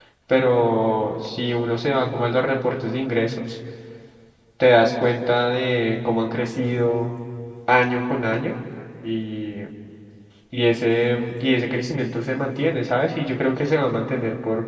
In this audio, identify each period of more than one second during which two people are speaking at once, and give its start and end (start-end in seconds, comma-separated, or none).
none